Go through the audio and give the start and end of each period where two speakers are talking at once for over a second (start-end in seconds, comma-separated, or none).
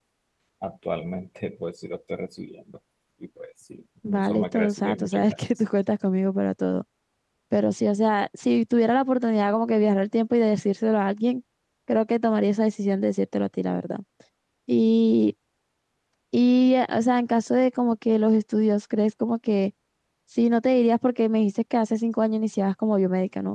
4.2-5.4